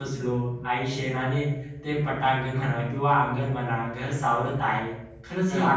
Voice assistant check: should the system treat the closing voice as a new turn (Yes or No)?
No